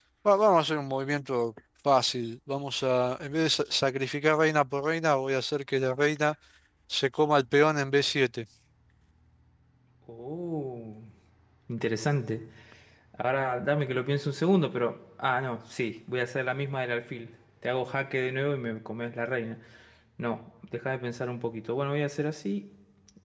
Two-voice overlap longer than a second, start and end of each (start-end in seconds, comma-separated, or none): none